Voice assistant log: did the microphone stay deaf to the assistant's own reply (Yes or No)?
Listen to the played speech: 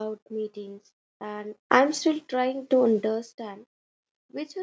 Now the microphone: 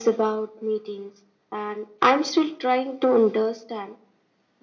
No